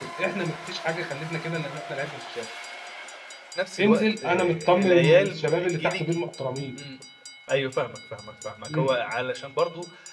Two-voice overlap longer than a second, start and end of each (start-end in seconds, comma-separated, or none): 3.8-6.2